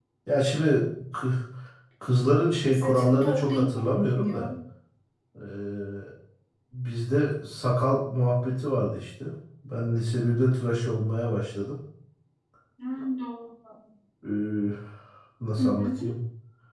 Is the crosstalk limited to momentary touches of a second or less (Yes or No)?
No